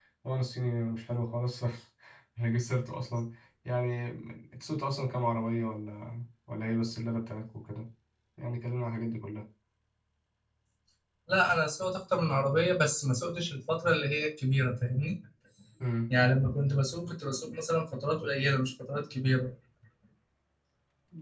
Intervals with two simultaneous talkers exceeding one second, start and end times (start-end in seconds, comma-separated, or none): none